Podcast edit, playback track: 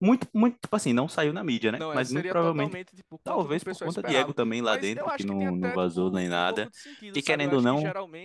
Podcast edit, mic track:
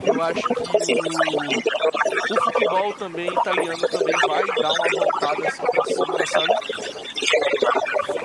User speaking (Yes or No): Yes